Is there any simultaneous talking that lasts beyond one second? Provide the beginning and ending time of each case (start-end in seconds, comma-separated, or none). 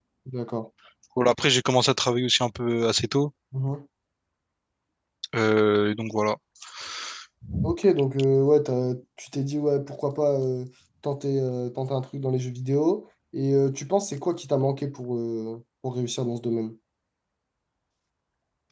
none